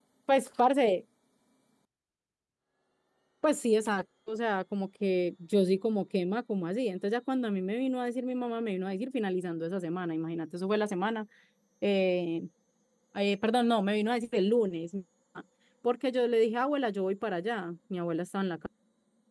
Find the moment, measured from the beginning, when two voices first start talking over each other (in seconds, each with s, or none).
none